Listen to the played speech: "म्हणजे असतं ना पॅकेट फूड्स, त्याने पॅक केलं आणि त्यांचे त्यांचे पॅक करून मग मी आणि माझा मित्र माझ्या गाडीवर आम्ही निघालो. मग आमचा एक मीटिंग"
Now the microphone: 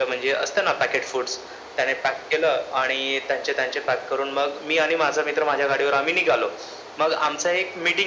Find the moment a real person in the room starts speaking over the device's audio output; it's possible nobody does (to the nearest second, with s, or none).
none